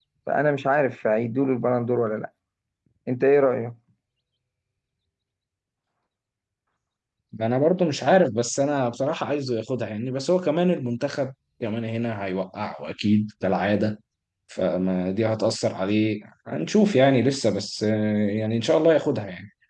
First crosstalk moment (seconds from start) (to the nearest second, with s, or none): none